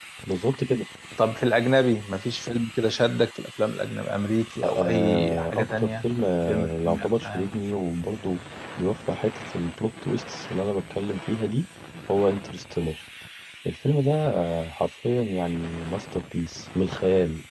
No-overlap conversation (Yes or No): No